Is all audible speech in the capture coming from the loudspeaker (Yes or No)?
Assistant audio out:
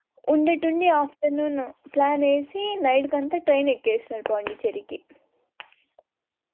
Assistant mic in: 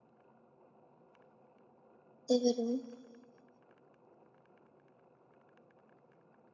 No